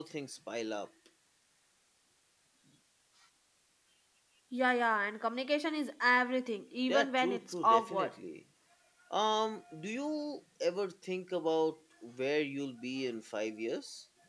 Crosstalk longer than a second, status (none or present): present